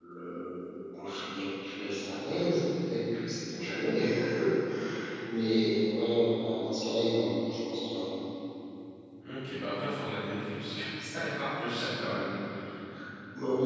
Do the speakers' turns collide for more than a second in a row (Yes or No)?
No